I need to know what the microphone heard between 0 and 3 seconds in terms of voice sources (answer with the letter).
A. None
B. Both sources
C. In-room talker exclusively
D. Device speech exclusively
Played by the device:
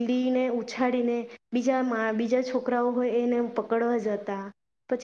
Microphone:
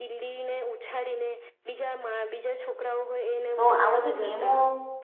D